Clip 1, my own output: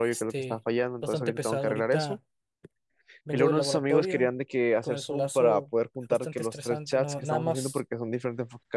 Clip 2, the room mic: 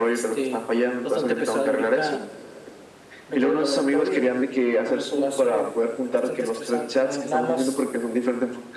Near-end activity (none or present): none